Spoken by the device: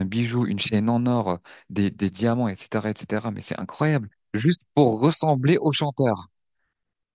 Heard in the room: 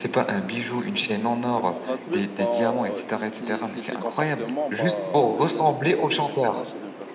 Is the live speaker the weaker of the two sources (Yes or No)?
Yes